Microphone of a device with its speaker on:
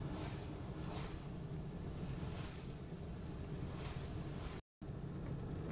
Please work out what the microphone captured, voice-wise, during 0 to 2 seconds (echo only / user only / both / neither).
neither